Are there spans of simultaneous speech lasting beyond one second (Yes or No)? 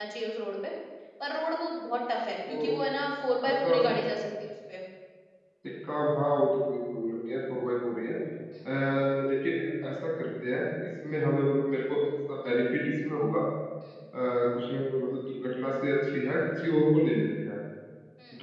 No